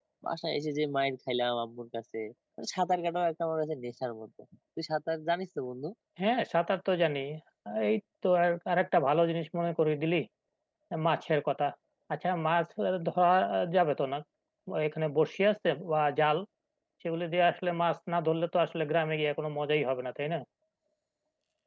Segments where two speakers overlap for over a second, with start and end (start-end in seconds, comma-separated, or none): none